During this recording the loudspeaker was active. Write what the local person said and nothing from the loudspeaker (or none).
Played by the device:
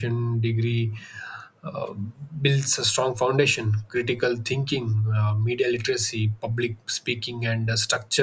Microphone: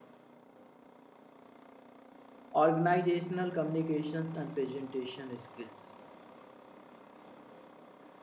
organizational communications, and presentation skills.